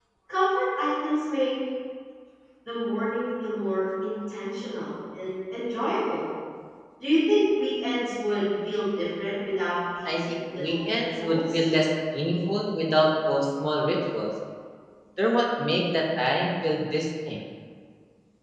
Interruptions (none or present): present